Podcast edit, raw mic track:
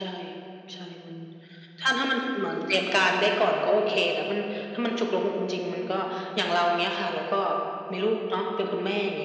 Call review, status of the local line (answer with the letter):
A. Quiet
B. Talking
A